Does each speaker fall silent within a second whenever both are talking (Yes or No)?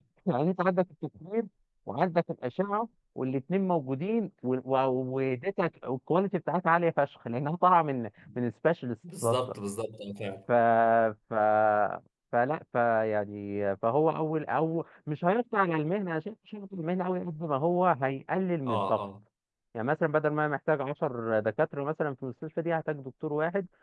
Yes